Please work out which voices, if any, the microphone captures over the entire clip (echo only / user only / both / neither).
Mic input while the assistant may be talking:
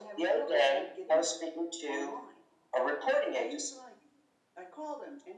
both